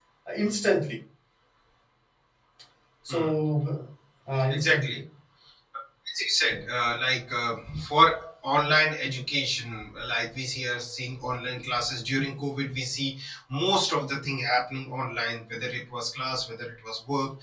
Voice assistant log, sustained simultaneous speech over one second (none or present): none